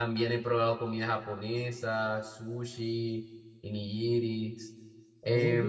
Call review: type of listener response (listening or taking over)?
taking over